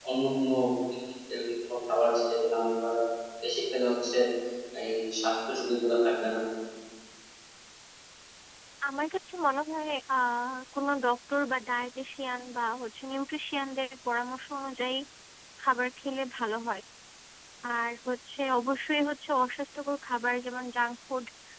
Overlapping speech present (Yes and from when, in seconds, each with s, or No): No